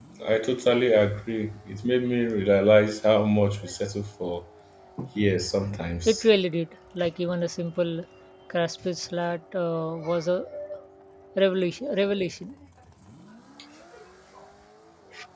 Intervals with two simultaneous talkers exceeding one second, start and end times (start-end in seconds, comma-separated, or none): none